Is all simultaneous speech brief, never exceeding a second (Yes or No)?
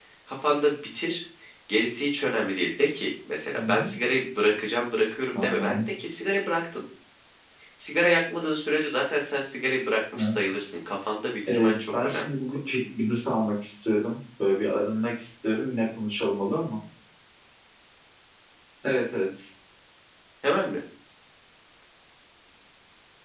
No